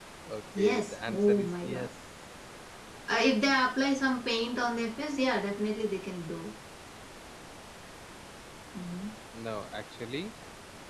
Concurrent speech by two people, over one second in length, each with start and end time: 0.6-1.9

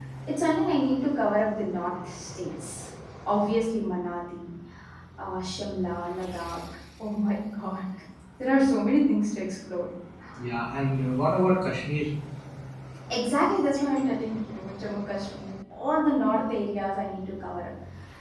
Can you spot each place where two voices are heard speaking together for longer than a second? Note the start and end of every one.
none

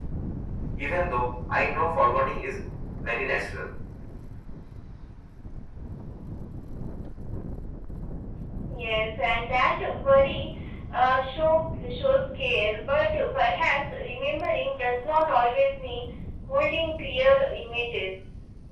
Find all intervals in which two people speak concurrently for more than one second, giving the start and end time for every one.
none

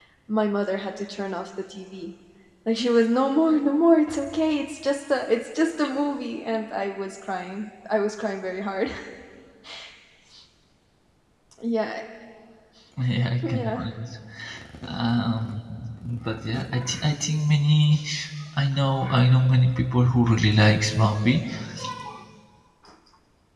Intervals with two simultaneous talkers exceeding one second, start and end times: none

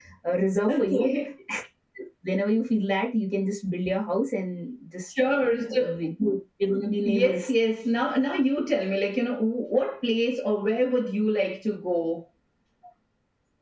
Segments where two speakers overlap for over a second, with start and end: none

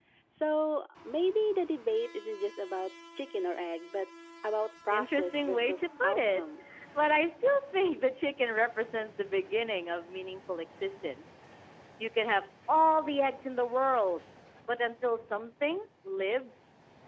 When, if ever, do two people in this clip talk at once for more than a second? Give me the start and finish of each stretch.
4.9-6.4

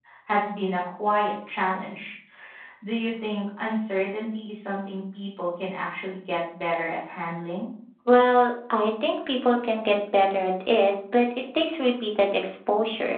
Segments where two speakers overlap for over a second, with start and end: none

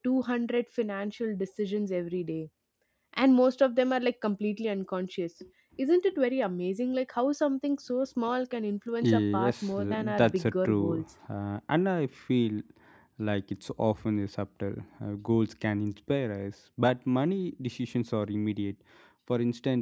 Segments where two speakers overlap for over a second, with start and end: 9.0-11.0

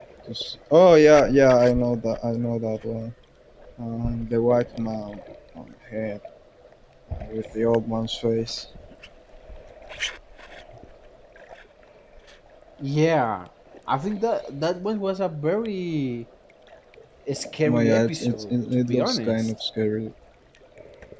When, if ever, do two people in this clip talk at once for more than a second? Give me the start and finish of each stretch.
17.7-19.5

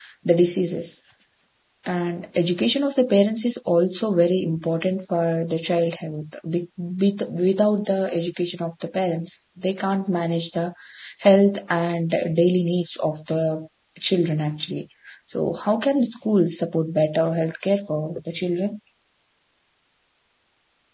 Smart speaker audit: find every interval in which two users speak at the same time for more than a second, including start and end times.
none

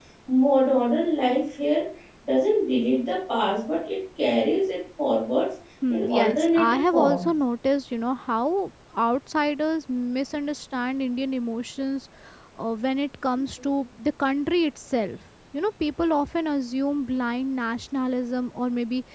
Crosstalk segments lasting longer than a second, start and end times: 5.9-7.3

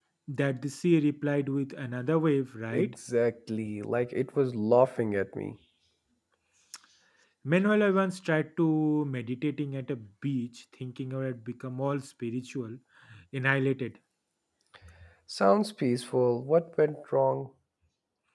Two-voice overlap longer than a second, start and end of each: none

